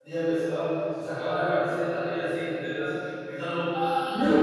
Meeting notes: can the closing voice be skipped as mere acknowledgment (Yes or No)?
Yes